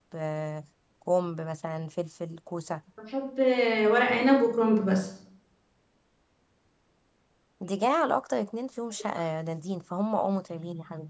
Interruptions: none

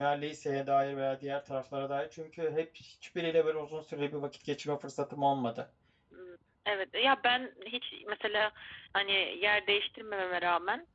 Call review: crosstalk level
none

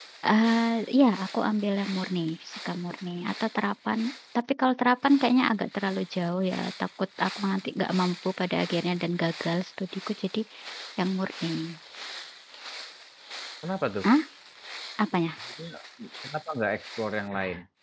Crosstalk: none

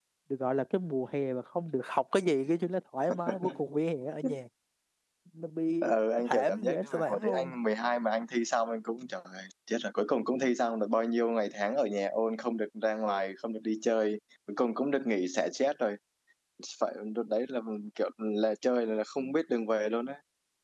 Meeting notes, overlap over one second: present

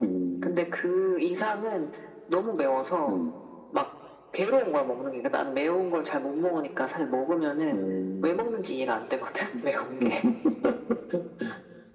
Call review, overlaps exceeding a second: none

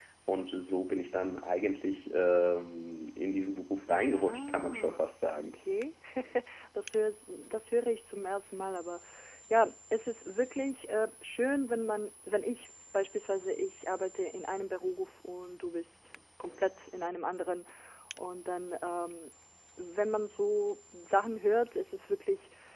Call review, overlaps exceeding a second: present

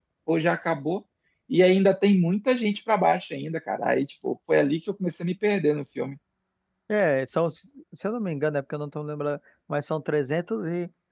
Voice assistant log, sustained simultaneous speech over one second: none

